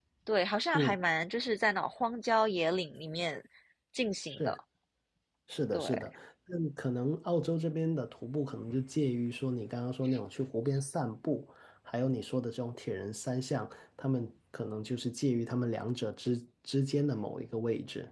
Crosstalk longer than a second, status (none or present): none